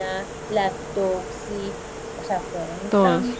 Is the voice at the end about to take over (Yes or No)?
No